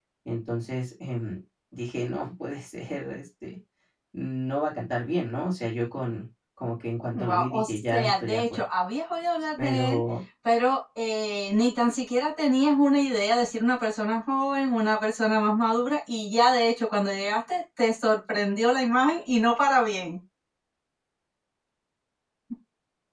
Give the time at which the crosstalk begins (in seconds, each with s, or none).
7.1 s